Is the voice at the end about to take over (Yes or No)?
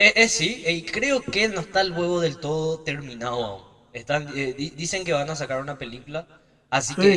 Yes